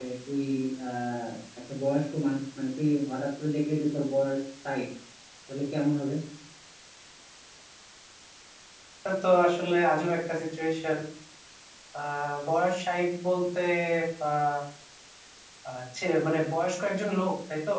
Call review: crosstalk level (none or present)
none